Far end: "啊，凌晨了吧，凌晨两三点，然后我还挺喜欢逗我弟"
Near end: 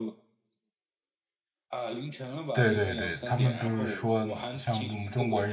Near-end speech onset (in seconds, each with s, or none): 2.5 s